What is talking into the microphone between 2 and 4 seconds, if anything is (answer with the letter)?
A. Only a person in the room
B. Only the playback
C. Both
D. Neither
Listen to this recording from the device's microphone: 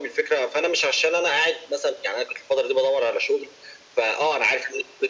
B